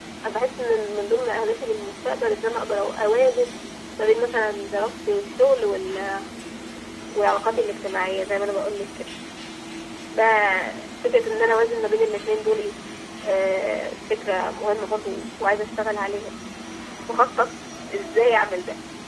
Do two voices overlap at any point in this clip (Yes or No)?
No